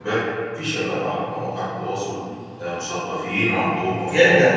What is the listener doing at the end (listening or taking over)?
taking over